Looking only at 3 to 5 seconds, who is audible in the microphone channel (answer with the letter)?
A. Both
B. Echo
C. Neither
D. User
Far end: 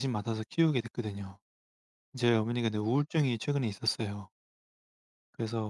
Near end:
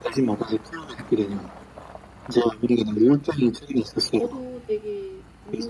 A